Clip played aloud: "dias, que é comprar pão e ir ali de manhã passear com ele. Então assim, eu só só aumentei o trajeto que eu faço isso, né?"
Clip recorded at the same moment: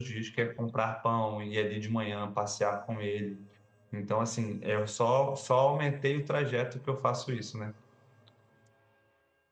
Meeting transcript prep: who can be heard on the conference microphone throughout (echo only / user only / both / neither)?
echo only